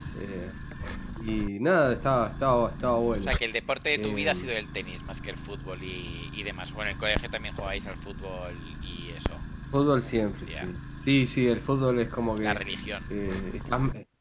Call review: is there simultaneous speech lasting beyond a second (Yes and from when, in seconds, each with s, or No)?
No